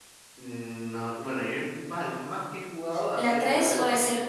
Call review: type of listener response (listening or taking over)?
taking over